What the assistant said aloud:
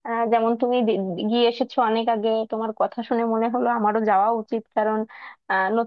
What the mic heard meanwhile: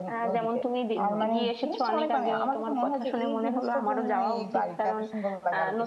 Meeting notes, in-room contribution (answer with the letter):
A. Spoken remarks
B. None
A